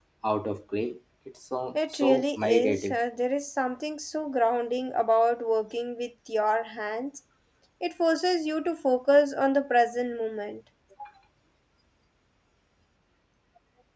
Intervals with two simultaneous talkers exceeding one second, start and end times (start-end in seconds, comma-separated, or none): 1.8-3.0